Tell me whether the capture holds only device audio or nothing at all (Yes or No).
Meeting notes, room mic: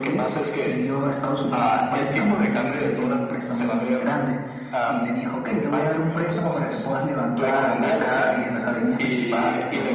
Yes